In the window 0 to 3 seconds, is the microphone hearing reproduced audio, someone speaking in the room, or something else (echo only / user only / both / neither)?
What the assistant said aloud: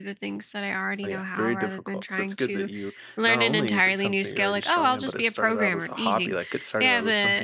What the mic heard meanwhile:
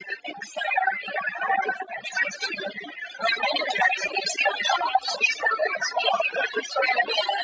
echo only